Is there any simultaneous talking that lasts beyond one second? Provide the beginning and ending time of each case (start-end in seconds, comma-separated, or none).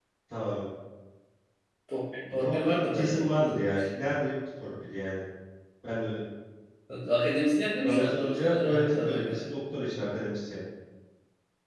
2.3-3.5, 7.8-9.5